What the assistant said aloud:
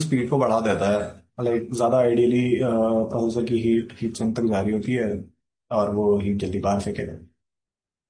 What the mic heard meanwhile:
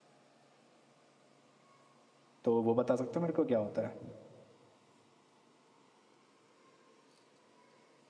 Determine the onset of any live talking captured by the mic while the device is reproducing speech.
2 s

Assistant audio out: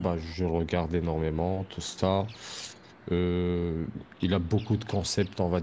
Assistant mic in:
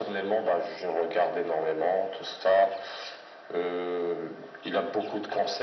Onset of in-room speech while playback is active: none

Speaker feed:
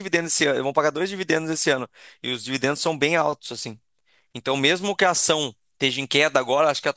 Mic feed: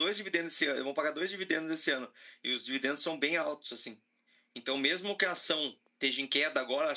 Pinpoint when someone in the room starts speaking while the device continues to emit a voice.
none

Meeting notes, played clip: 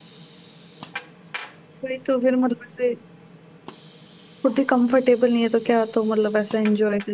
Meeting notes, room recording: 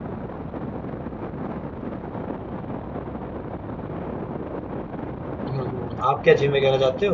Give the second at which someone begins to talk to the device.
5 s

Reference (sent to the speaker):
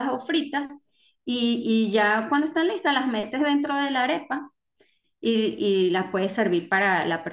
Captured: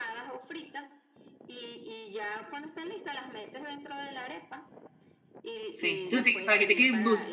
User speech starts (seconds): 6 s

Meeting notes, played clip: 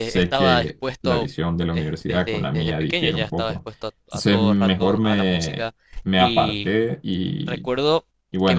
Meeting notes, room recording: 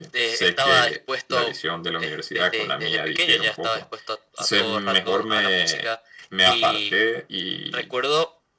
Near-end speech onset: none

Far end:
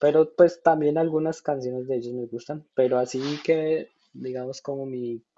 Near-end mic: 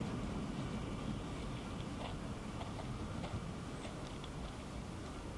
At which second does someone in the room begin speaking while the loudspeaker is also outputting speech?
none

